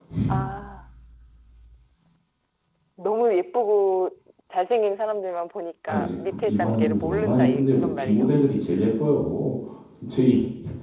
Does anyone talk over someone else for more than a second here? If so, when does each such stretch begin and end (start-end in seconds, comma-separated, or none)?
5.9-8.3